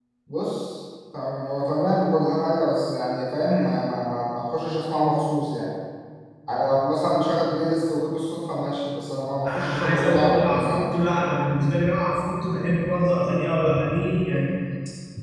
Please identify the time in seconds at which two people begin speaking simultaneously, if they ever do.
9 s

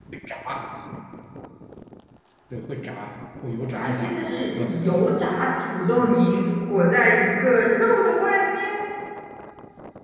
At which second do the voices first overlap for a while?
4 s

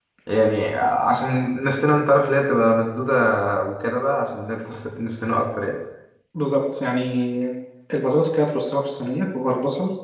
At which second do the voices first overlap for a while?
none

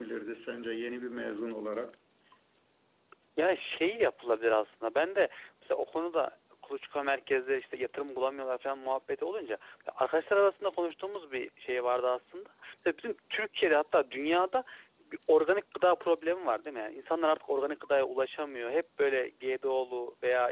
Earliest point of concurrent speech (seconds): none

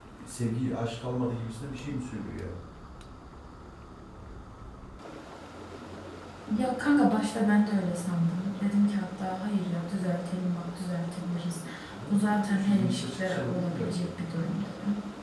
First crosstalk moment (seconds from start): 12 s

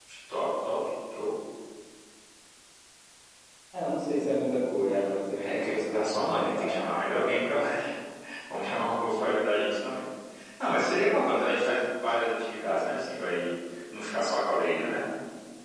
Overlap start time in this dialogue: 5 s

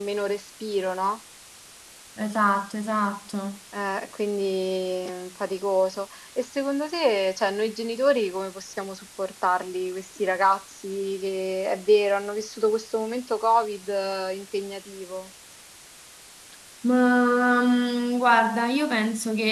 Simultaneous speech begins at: none

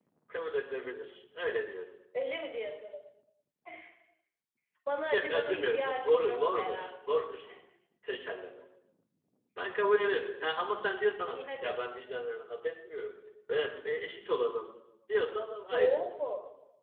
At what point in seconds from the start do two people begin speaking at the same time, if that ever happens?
5 s

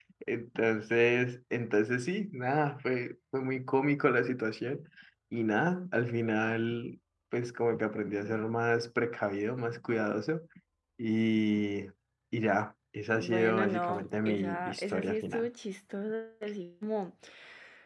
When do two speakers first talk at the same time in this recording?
13 s

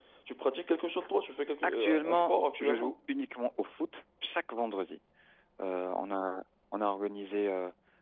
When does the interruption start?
2 s

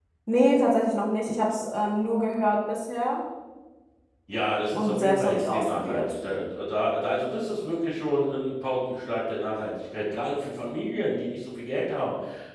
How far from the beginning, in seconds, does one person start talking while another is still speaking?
5 s

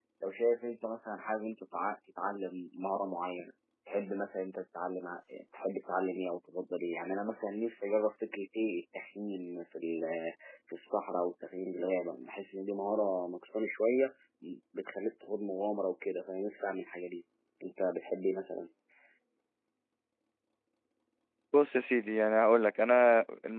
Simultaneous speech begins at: none

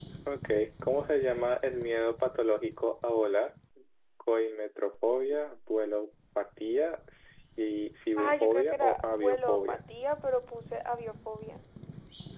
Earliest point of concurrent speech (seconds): 8 s

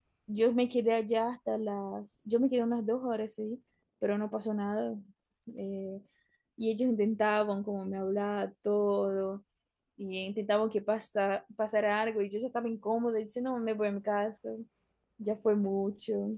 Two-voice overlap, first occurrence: none

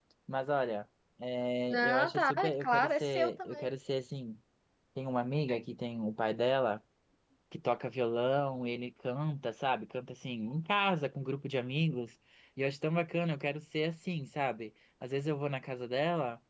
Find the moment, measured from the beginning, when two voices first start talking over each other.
2 s

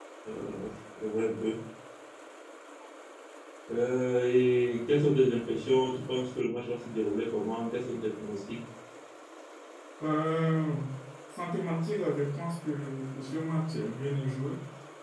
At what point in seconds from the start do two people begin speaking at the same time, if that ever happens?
none

